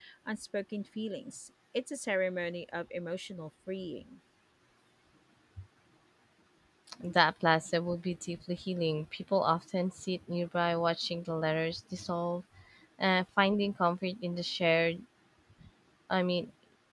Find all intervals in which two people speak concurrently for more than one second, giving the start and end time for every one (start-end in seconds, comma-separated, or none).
none